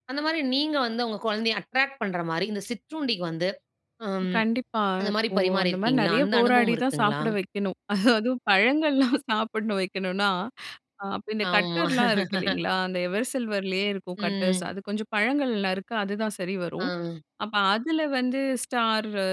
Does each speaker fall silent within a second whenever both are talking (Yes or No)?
No